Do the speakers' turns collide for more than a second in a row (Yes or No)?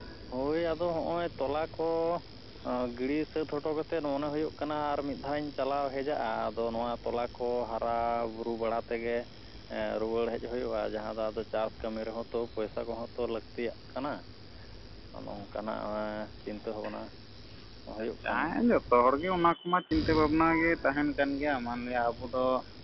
No